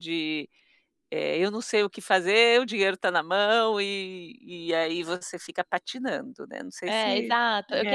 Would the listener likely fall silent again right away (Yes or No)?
No